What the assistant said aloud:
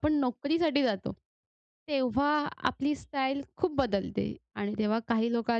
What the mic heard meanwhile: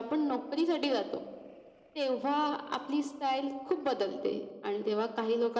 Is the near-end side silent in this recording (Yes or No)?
Yes